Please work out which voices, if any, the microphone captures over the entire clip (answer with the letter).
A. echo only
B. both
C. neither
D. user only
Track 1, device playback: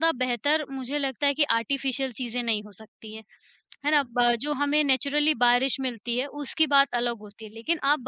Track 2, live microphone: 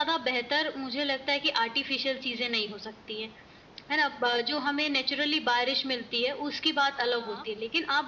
B